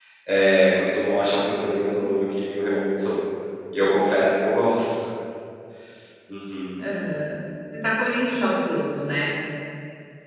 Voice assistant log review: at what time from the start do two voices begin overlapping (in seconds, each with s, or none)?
none